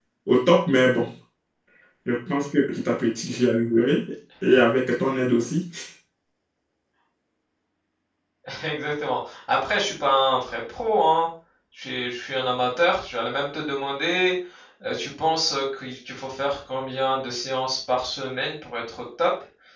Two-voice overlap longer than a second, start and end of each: none

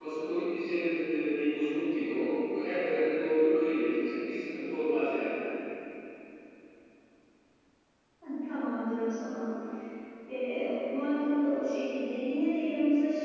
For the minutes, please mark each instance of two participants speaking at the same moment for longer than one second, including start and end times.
none

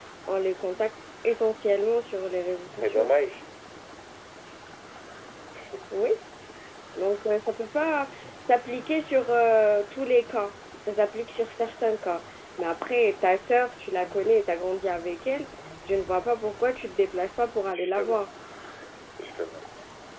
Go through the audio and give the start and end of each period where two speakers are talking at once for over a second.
none

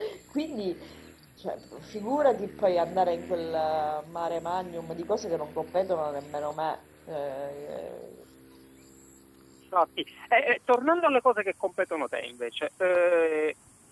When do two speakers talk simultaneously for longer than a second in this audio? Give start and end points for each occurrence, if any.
none

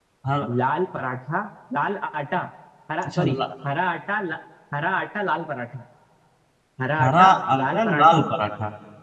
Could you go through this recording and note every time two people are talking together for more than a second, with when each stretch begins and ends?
7.0-8.2

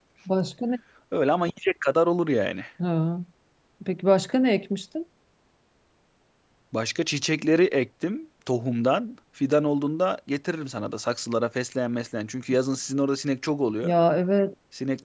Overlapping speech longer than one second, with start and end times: none

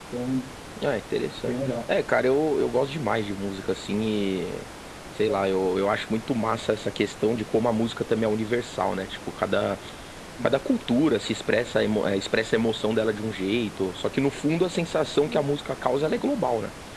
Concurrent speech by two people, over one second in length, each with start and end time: none

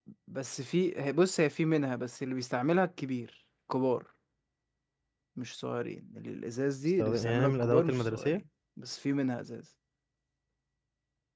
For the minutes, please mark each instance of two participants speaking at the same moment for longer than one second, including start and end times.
7.0-8.4

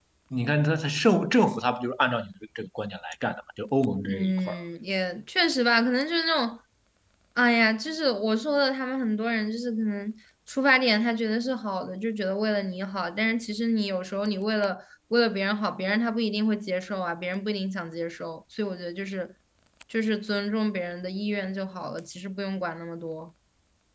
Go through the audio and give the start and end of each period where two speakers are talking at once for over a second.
none

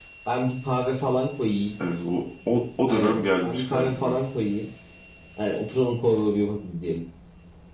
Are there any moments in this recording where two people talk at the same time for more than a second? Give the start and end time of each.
2.9-4.2

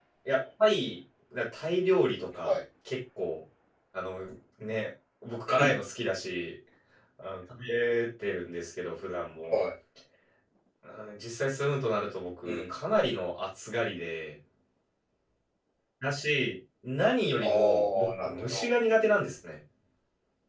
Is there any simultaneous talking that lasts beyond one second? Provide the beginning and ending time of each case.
17.4-18.7

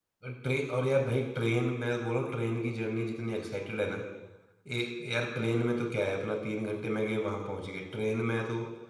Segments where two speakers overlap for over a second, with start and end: none

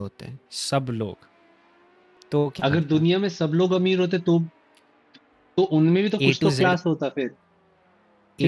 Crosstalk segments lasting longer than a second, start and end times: none

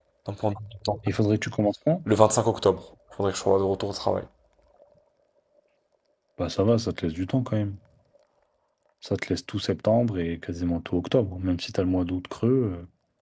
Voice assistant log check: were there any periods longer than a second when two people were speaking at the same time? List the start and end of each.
none

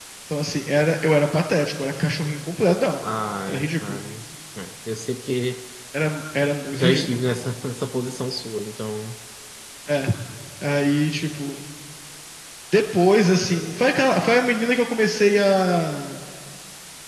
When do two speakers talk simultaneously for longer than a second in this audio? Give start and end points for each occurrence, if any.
none

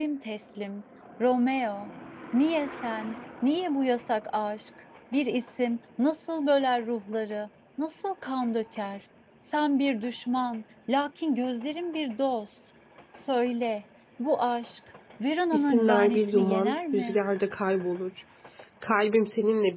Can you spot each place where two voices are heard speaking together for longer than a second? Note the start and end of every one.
15.5-17.2

